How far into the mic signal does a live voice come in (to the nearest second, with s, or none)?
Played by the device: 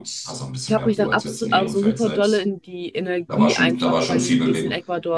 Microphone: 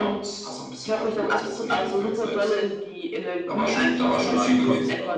4 s